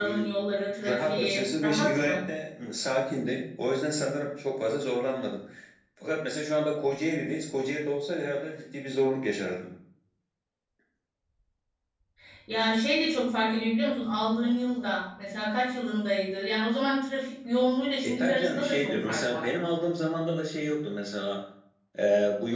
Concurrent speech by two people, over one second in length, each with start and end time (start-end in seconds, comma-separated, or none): 0.9-2.2, 18.0-19.5